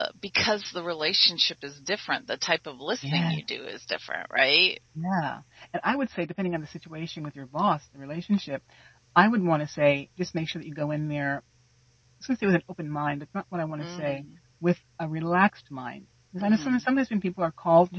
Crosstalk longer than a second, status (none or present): none